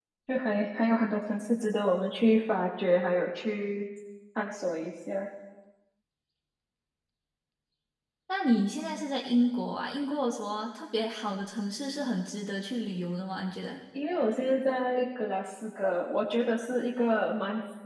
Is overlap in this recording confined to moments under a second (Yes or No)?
Yes